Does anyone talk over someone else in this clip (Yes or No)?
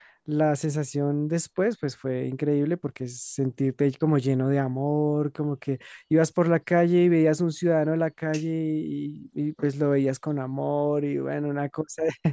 No